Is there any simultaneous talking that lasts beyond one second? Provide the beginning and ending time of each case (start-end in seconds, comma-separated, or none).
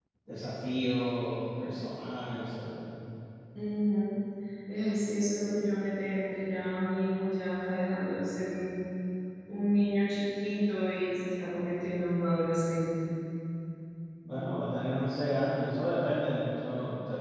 none